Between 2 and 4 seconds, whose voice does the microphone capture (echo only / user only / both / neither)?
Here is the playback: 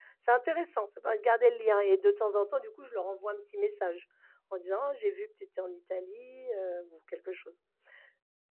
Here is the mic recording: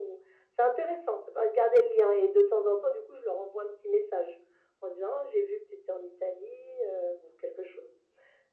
echo only